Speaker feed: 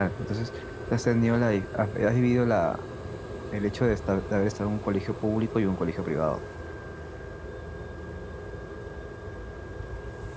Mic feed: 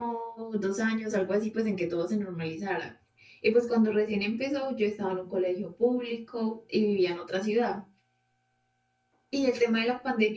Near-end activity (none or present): present